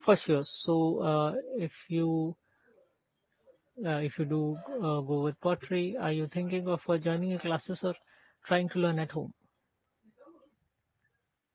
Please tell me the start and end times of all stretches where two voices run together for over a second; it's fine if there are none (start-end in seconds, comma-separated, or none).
none